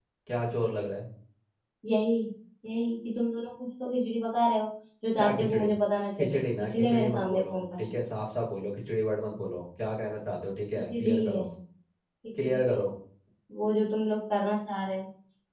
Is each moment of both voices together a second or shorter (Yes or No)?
No